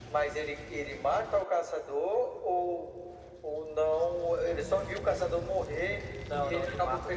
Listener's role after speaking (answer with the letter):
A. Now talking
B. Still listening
A